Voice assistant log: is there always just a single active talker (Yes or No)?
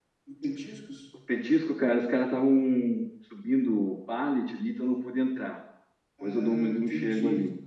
No